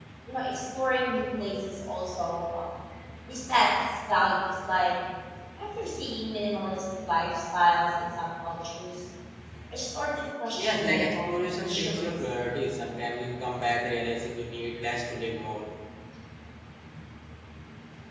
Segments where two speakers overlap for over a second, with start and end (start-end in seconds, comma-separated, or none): 10.6-12.1